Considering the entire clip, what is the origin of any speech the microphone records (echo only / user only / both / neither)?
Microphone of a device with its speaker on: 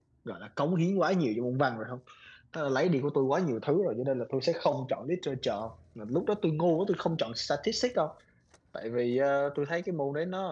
user only